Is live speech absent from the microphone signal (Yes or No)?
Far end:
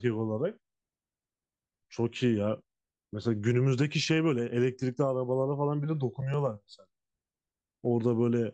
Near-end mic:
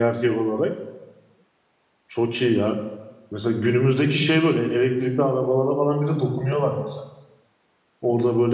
Yes